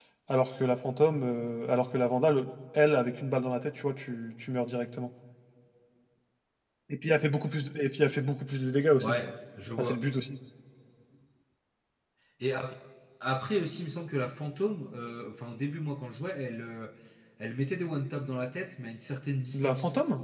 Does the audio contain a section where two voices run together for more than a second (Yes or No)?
No